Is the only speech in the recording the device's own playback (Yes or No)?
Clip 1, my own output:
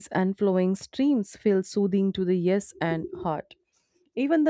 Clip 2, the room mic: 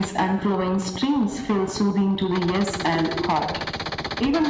Yes